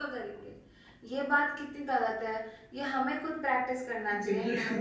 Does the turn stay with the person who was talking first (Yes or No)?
Yes